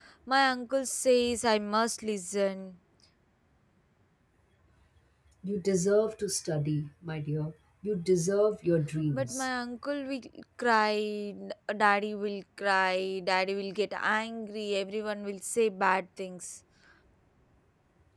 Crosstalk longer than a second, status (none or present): none